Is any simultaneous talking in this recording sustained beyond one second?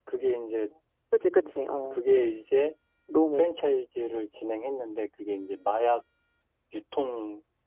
No

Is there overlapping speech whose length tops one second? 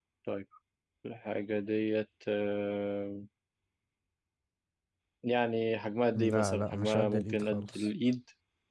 Yes, from 6.2 s

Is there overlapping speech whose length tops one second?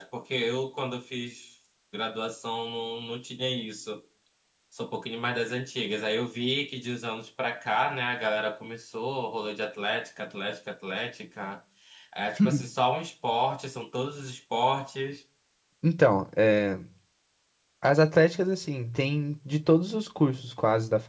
No

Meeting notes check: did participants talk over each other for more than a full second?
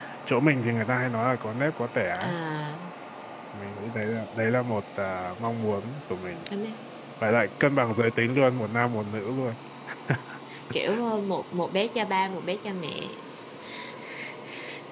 No

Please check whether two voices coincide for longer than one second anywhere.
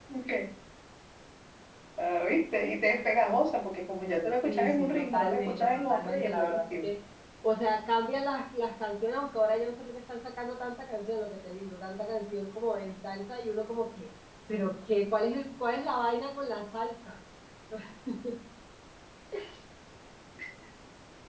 Yes, from 4.5 s

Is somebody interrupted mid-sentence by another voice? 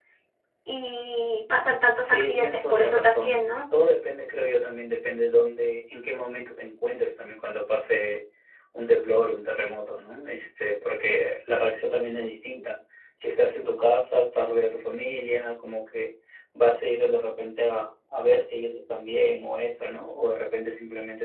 Yes, from 2.0 s

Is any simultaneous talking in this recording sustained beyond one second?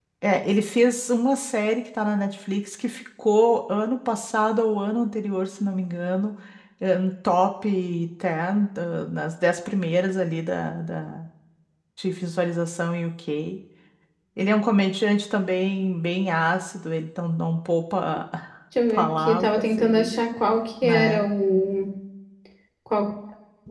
Yes, from 18.9 s

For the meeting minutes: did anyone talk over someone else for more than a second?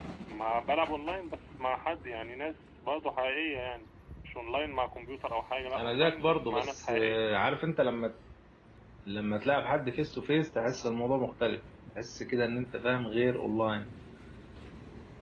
Yes, from 5.7 s

